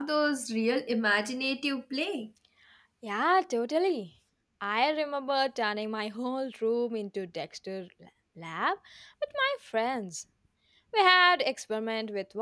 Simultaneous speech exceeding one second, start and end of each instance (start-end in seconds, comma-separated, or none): none